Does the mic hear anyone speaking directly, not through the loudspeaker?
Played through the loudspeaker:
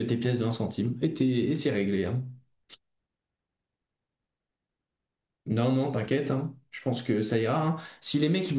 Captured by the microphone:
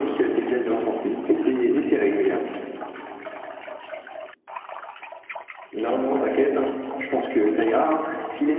No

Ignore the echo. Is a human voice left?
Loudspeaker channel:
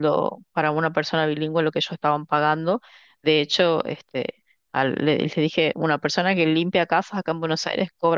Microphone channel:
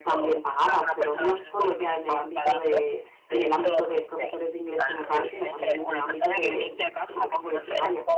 Yes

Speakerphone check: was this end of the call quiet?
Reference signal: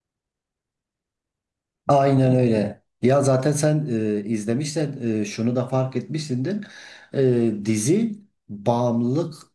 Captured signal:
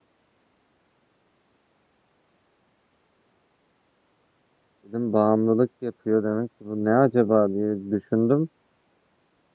No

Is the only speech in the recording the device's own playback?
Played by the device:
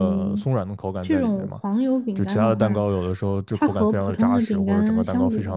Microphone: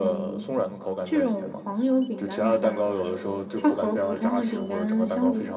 Yes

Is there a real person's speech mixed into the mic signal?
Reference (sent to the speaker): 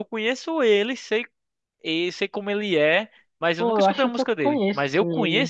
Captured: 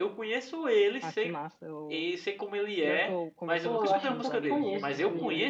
Yes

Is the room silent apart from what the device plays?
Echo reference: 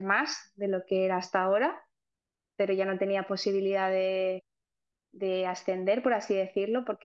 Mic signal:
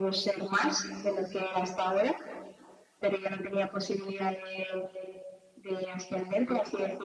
Yes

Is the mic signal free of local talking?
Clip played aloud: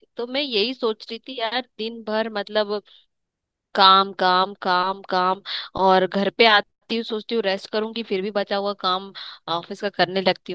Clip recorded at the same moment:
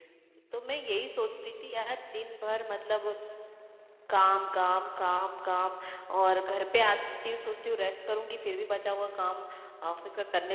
Yes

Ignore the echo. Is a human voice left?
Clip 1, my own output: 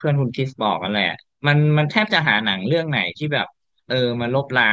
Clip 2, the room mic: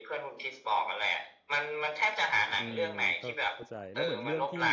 Yes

